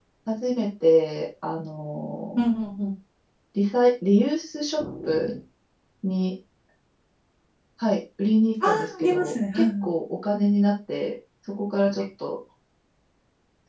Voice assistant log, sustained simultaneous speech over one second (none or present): present